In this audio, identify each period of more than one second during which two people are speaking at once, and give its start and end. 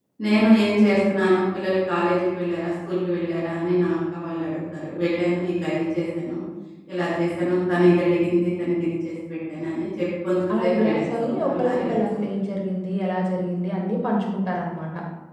10.5-12.2

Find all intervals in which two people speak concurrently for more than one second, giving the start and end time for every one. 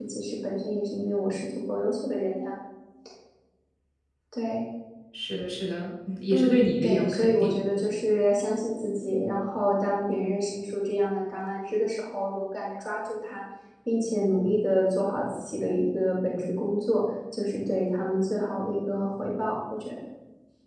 6.3-7.6

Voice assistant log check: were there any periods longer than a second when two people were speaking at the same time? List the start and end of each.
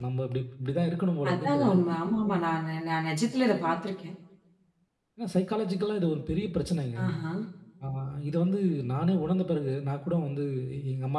none

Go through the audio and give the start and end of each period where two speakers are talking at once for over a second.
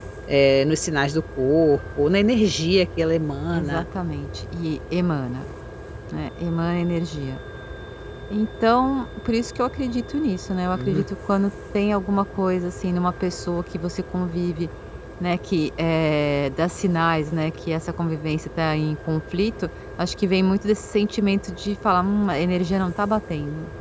none

